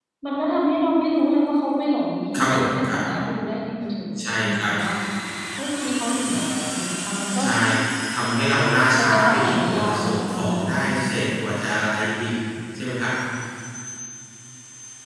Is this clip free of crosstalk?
No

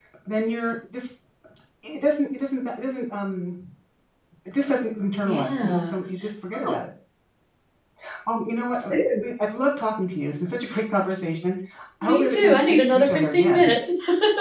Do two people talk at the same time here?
Yes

